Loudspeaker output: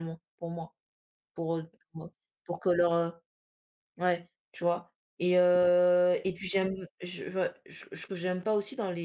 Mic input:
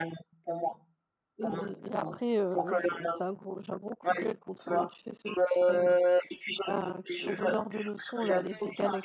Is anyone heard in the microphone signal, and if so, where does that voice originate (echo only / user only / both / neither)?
both